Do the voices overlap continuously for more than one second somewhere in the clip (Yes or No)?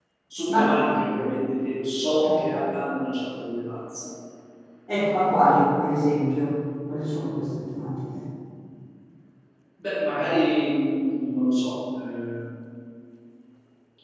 No